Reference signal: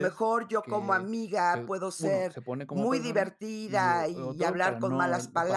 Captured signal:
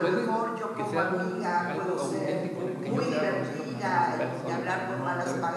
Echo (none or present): present